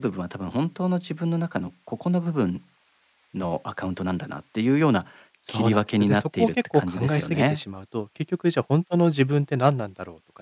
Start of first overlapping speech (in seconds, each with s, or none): 5.5 s